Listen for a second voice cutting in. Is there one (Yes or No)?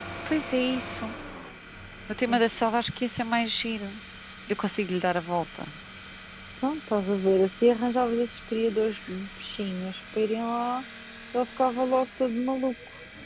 No